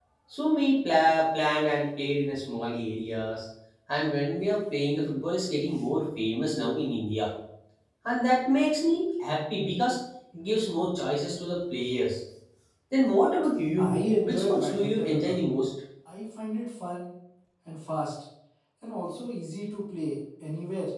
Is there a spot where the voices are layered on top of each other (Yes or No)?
Yes